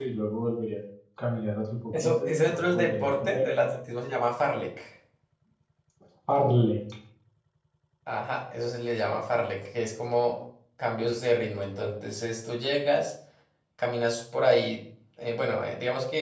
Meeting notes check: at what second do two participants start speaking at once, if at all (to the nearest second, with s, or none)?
2 s